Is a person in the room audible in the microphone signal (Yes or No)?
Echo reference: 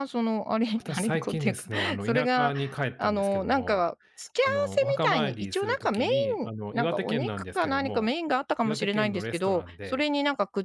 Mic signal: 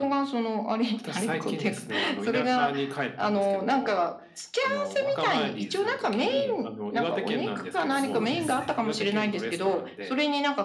Yes